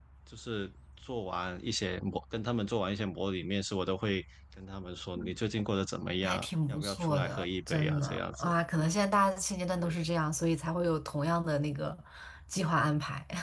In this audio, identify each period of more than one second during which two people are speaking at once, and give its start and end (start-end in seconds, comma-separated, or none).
6.2-8.5